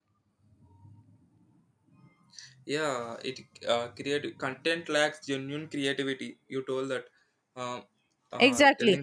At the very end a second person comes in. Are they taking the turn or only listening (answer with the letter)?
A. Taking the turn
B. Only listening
A